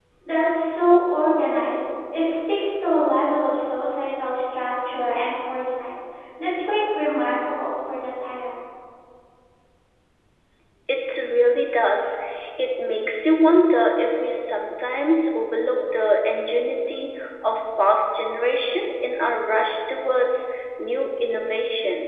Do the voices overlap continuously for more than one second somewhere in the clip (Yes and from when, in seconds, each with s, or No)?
No